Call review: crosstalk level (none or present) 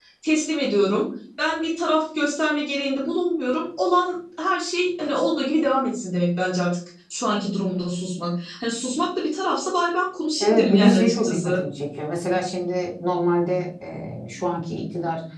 present